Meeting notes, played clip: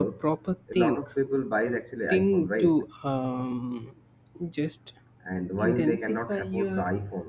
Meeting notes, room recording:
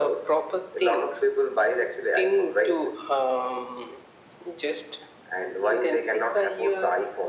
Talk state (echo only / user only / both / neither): echo only